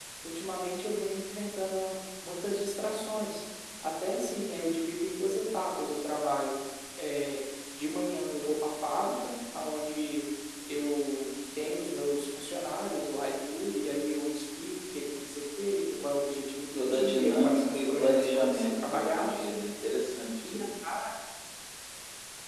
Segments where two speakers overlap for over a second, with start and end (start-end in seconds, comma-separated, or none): 16.7-19.5